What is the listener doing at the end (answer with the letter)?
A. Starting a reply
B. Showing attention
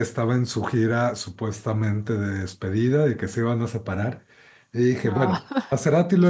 B